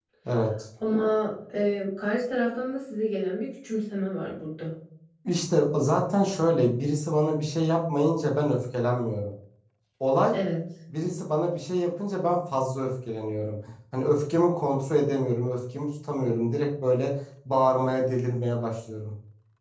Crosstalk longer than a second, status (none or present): none